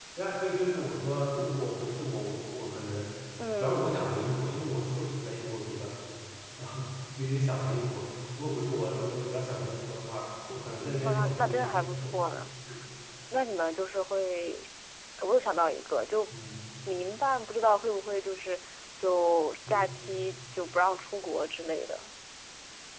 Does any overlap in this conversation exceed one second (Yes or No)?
Yes